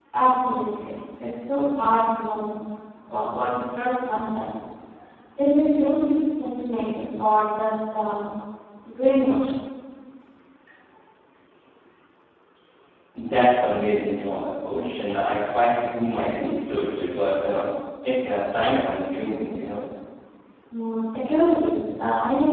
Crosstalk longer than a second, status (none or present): none